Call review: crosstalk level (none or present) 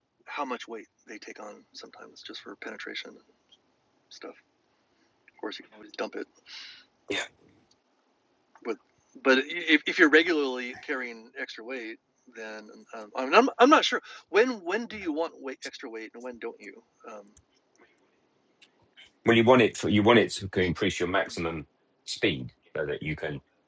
none